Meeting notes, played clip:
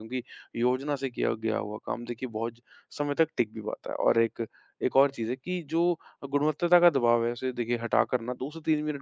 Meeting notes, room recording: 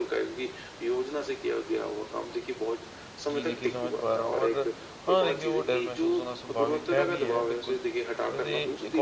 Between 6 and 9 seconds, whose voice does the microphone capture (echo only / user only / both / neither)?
both